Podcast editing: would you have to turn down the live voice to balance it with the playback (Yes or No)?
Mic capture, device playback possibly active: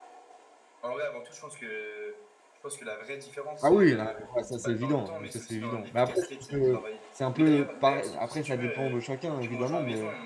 Yes